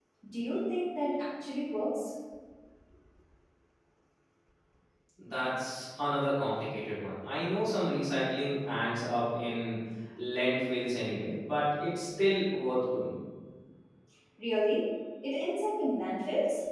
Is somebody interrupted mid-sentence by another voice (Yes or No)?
No